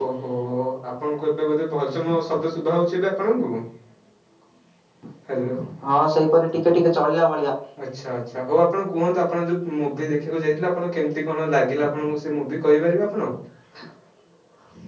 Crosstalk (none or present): none